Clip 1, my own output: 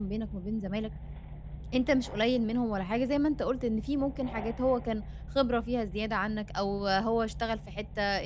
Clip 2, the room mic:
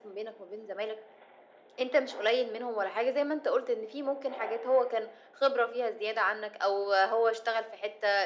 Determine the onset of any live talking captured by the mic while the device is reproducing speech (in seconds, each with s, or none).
none